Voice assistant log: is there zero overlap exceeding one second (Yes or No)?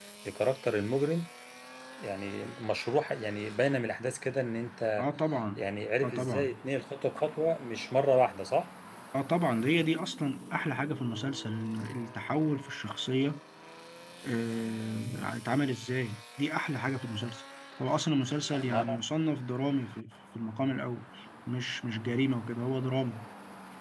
Yes